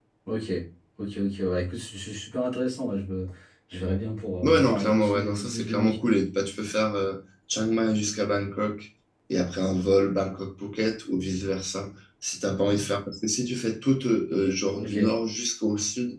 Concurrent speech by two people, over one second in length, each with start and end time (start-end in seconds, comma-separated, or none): 4.4-6.0